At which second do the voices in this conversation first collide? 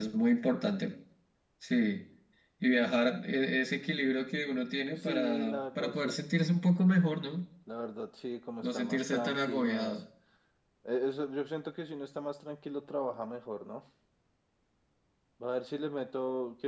5.0 s

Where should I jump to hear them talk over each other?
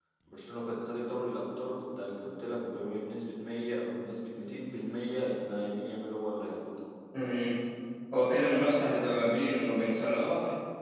none

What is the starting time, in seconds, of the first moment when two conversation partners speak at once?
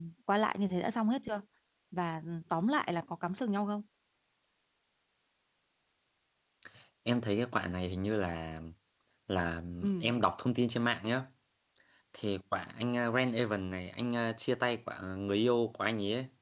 none

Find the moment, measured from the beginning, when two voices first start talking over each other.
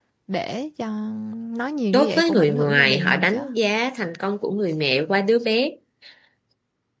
1.9 s

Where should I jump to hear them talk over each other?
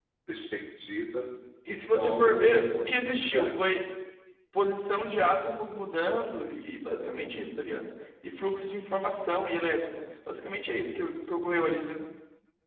1.6 s

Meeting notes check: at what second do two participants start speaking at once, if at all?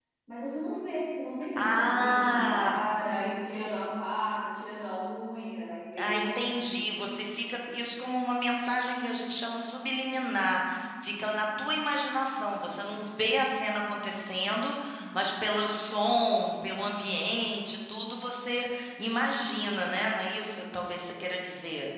1.6 s

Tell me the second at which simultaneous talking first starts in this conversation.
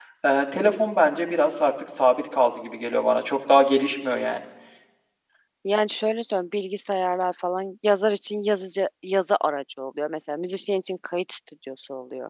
none

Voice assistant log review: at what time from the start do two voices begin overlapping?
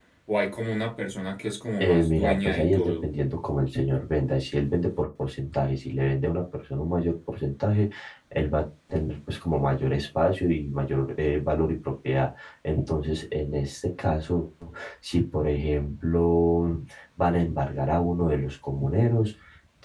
1.8 s

